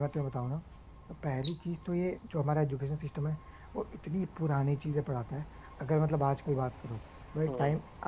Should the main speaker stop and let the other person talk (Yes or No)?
No